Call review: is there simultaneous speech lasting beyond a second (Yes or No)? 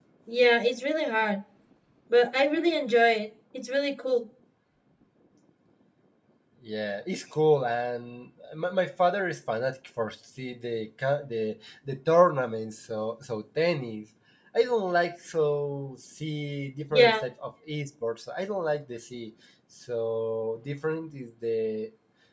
No